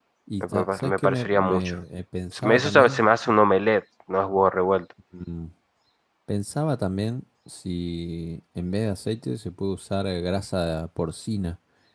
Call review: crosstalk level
present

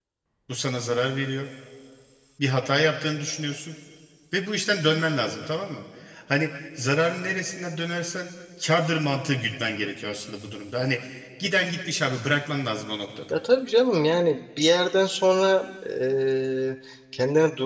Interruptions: none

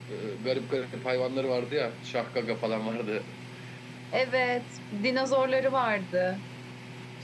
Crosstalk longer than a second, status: none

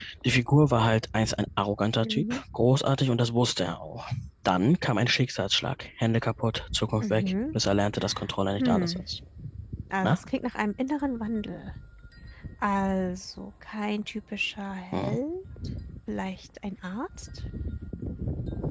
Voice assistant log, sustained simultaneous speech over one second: none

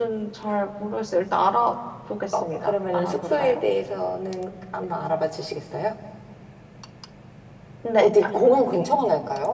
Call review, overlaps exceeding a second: present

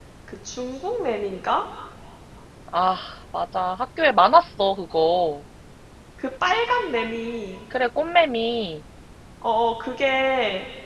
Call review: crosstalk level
none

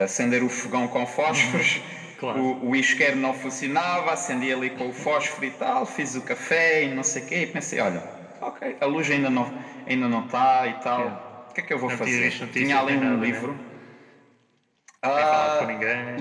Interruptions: present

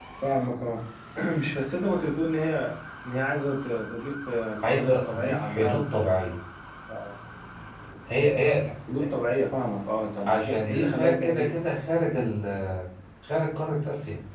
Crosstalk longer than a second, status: present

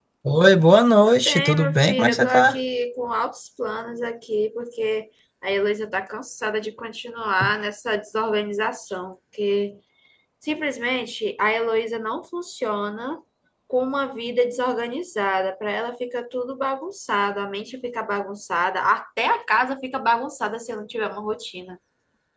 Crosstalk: present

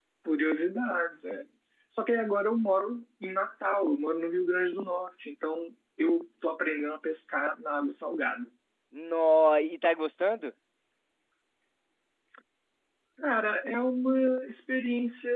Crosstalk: none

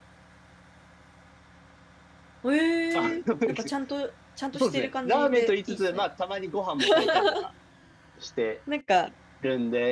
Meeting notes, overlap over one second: present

